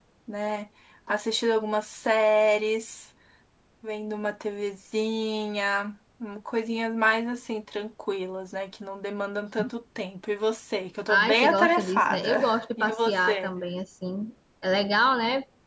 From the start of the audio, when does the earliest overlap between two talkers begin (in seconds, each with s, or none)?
11.1 s